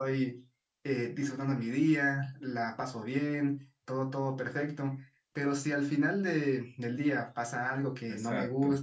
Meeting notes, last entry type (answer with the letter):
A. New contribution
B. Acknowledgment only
B